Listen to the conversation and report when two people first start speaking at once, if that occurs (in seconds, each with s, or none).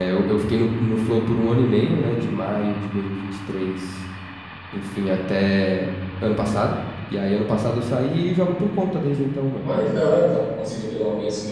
none